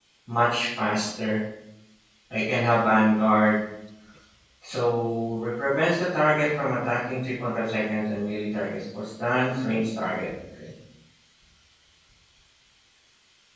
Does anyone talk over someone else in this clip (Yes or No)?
No